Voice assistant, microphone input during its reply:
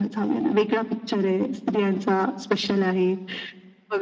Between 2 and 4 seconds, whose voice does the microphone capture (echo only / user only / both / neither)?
echo only